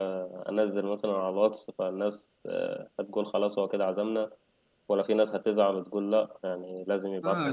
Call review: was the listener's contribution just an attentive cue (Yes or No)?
No